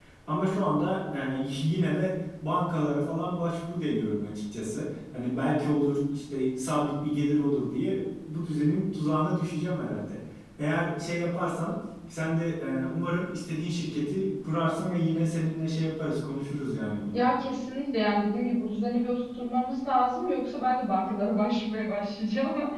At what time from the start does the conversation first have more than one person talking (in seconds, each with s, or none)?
none